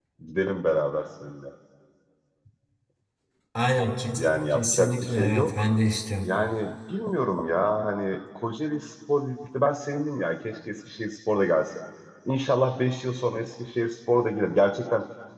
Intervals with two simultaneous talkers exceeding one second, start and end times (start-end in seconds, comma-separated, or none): 4.2-5.8